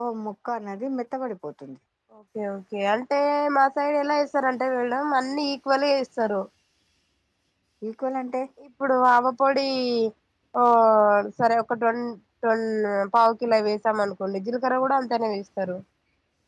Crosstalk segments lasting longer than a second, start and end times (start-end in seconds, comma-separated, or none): none